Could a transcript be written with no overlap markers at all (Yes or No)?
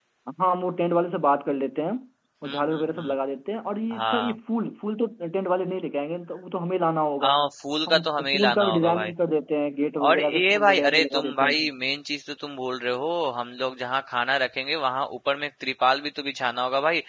No